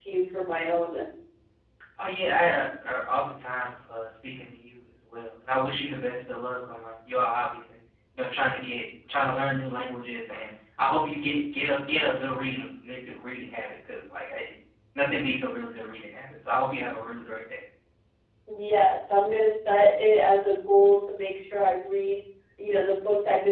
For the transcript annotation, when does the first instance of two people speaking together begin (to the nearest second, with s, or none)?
none